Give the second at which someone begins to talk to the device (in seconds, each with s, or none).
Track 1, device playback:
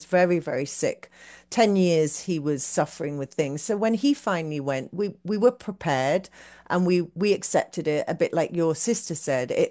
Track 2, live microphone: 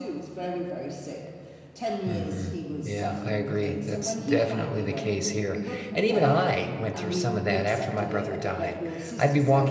2.0 s